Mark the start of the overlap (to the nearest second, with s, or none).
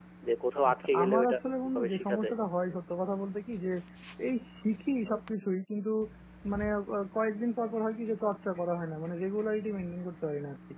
1 s